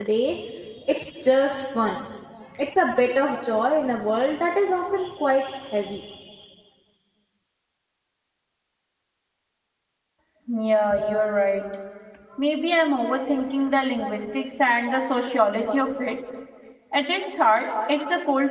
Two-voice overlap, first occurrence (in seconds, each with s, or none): none